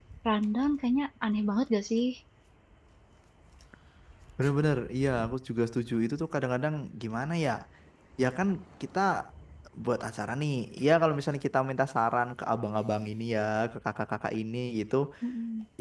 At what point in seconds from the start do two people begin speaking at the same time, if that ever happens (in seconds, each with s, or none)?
none